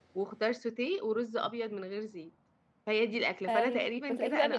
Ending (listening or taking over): taking over